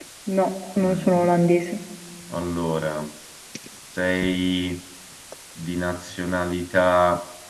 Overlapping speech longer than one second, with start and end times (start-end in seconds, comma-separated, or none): none